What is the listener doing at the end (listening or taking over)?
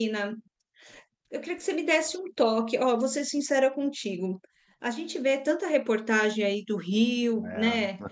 listening